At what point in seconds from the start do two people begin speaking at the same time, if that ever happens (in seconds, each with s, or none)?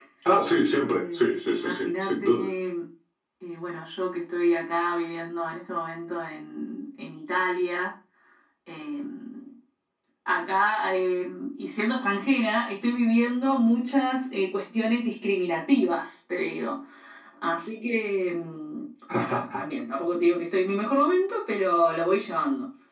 0.7 s